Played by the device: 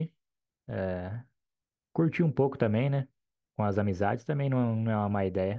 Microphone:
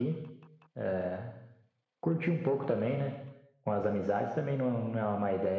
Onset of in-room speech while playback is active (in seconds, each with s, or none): none